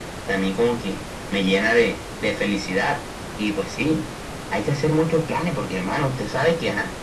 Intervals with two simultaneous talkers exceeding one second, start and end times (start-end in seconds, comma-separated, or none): none